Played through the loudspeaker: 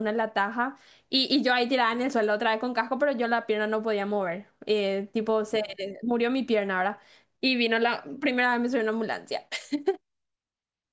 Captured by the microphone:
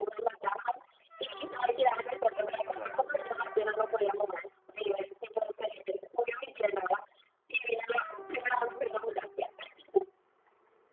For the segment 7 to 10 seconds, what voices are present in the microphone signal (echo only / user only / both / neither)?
echo only